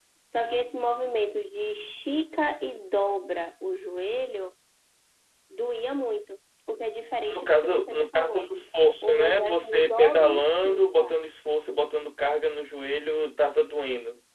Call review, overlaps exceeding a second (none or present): present